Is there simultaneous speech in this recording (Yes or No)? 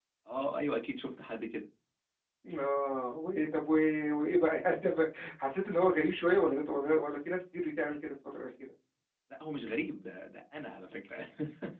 No